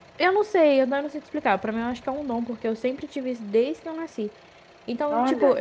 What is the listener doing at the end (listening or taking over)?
listening